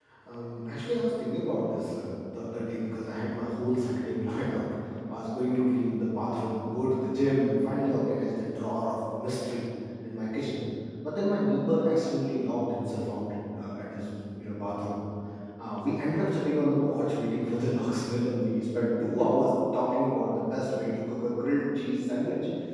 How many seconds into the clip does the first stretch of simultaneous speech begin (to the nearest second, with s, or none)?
none